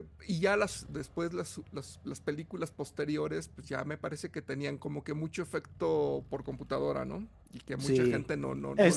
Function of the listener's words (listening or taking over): taking over